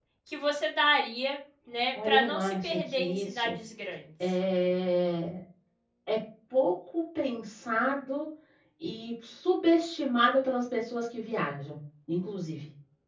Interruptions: present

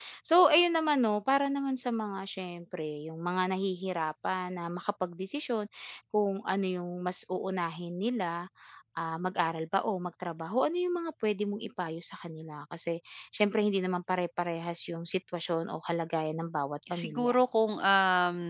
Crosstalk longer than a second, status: none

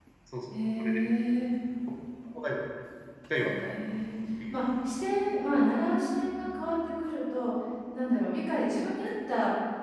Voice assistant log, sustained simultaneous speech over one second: none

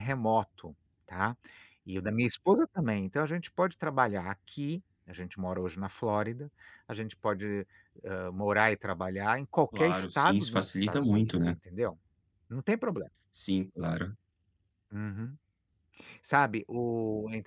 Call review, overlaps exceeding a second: present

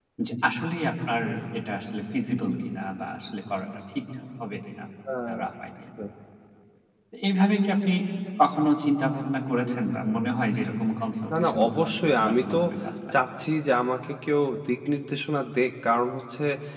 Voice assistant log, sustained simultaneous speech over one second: present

